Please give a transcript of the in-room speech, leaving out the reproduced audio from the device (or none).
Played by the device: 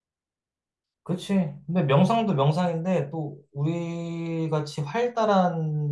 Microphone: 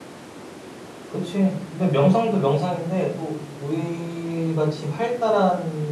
none